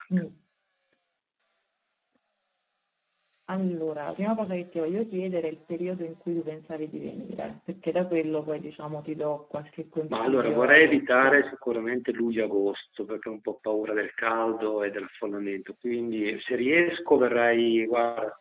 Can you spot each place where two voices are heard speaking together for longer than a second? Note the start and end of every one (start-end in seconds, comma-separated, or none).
10.1-11.4